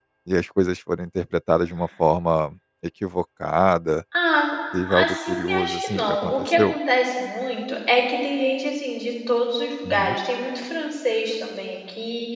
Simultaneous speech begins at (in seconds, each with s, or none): 4.9 s